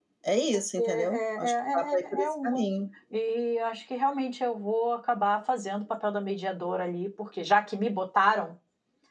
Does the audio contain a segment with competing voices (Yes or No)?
Yes